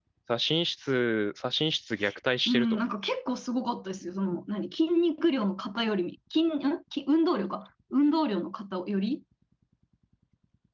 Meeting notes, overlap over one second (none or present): none